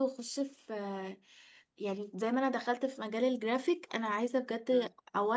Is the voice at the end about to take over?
No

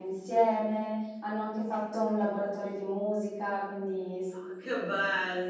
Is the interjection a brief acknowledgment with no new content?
No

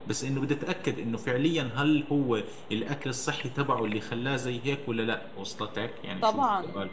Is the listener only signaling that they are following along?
No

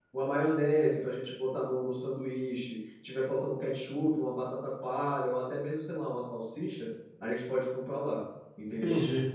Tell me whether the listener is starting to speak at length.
Yes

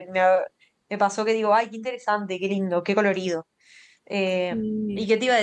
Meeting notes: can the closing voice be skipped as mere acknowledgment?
Yes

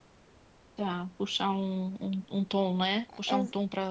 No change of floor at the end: Yes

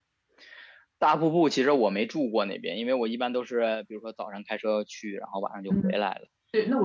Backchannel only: No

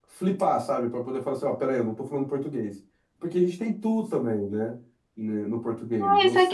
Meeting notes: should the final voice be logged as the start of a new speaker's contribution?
Yes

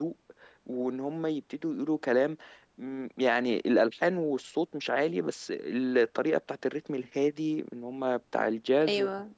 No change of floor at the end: Yes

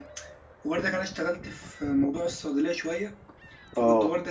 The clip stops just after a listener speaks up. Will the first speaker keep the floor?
Yes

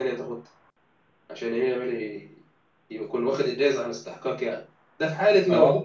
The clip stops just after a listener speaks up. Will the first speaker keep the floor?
Yes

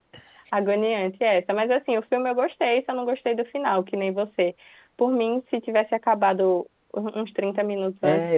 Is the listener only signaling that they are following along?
No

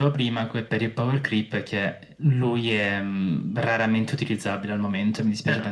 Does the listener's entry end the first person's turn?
Yes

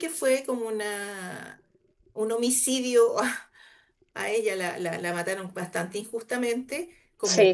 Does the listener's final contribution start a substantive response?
No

